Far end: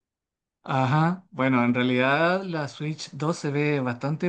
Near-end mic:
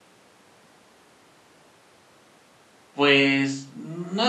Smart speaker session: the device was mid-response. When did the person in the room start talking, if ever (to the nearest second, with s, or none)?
3 s